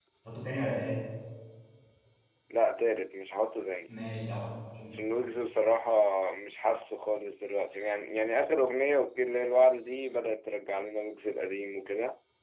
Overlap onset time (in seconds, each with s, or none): none